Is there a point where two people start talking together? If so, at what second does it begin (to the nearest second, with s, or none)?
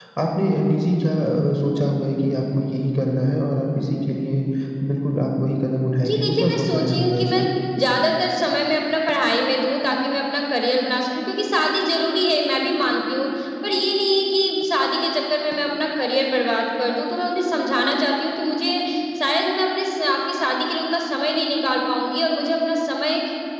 6 s